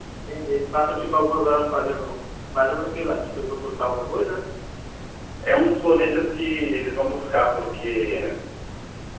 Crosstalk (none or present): none